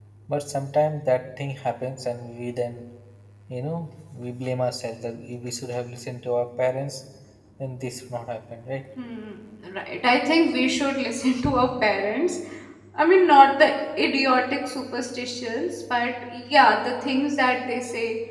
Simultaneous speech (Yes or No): No